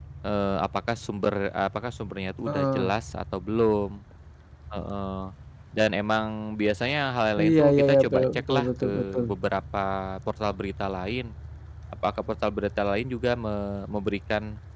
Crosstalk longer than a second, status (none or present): present